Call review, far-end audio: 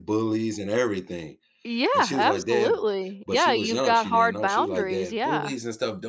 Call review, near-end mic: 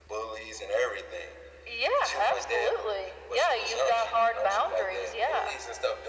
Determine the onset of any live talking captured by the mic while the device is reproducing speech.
none

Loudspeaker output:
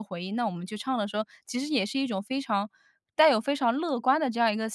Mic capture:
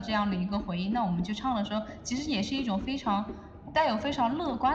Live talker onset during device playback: none

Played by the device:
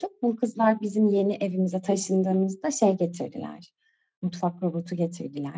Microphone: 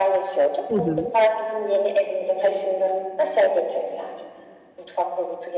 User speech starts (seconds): 0.7 s

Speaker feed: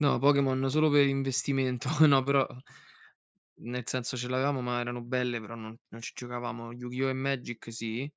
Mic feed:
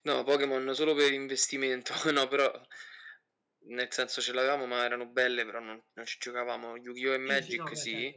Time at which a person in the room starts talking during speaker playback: 7.2 s

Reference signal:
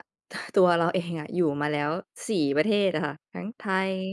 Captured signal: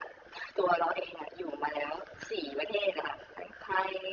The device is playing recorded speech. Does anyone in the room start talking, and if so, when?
none

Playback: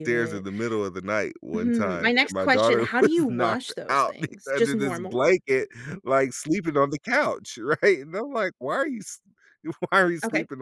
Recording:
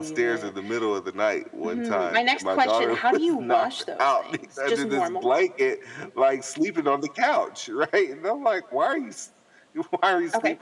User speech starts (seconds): none

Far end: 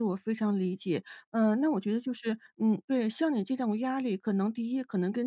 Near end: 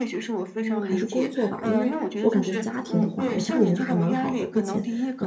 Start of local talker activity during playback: 0.6 s

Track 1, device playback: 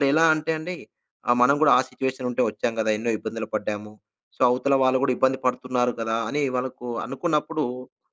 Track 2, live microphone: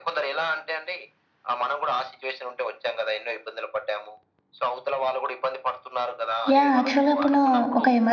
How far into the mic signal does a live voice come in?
6.5 s

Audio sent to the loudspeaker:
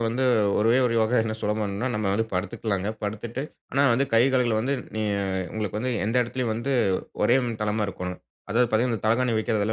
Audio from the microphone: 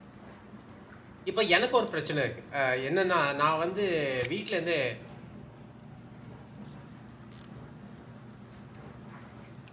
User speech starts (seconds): 1.3 s

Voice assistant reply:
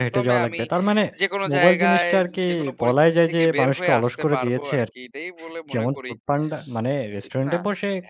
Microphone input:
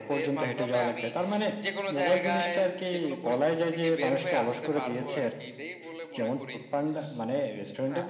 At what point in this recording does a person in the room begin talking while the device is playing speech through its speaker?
none

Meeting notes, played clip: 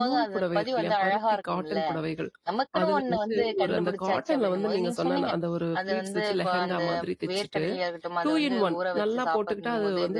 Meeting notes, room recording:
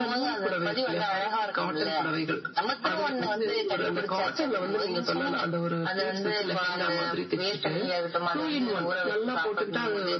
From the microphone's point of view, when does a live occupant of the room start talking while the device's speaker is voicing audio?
none

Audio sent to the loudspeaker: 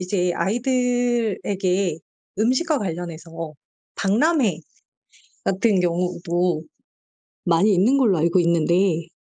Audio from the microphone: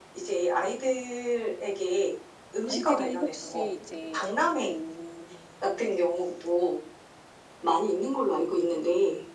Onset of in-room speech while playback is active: 2.6 s

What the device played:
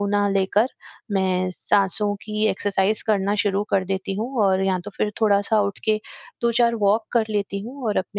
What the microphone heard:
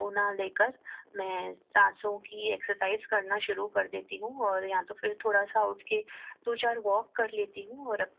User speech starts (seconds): none

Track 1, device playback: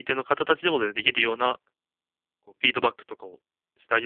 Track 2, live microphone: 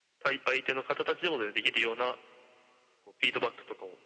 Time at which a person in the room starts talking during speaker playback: none

